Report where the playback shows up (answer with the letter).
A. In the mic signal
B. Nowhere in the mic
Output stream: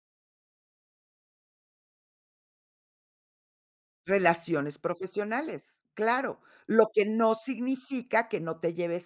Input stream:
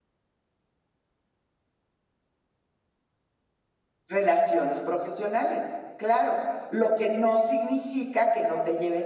A